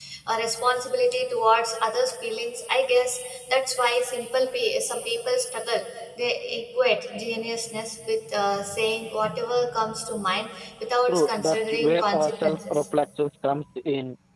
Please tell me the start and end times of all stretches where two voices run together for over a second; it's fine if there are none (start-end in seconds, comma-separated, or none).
11.1-12.8